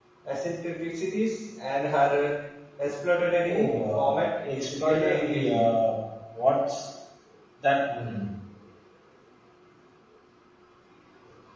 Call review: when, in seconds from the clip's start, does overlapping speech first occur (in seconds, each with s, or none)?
3.4 s